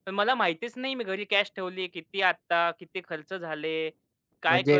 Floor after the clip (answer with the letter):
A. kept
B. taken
B